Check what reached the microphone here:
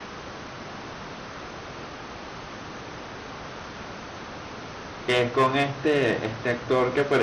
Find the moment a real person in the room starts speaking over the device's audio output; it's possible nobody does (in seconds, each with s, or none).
5.0 s